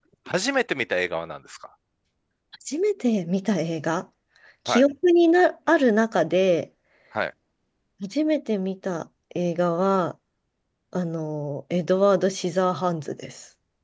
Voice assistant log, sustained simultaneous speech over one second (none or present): none